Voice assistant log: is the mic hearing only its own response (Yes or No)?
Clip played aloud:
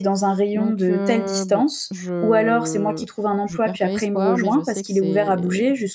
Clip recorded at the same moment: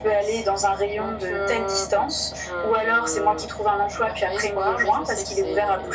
Yes